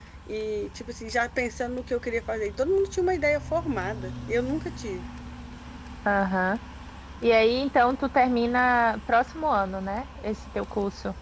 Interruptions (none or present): none